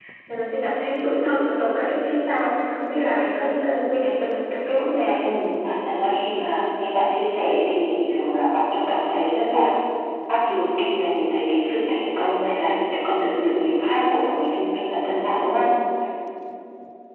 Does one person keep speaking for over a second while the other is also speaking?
No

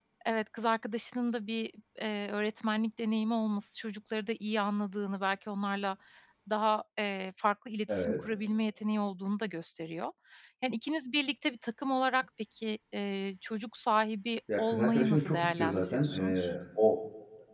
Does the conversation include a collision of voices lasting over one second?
Yes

